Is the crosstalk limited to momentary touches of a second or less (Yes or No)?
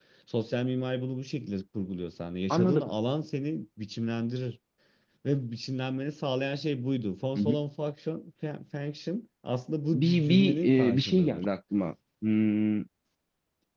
No